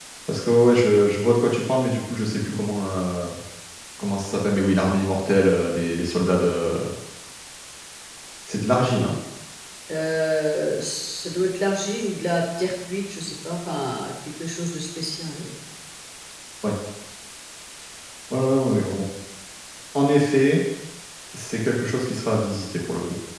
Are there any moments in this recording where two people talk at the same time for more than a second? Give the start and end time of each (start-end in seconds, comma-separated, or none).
none